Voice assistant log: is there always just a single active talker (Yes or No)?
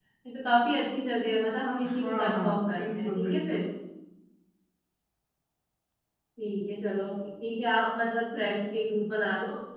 No